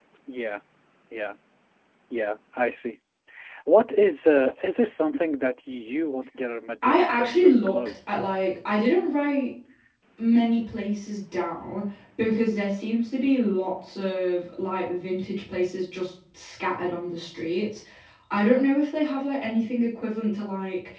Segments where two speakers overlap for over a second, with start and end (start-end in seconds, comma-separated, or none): 6.8-8.1